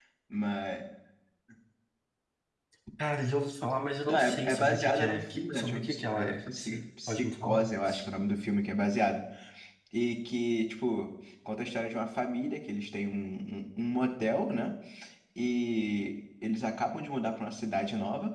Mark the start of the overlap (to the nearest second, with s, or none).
4 s